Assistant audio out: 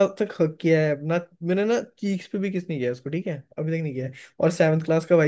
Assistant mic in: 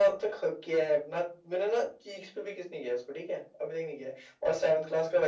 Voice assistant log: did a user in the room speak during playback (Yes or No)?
No